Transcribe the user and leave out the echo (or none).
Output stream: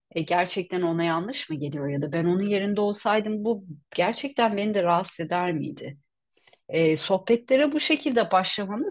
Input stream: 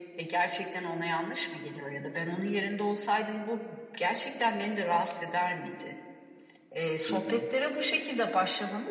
hı hı,